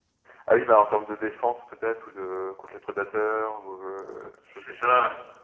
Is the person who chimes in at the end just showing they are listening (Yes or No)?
No